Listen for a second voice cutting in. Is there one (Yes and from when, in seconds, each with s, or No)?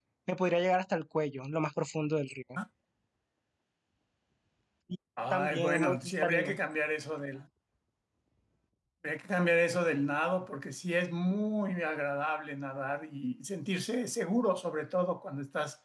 Yes, from 5.3 s